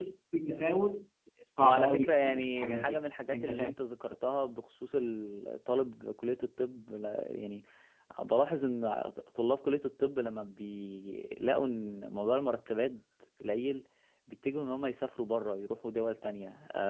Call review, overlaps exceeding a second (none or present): present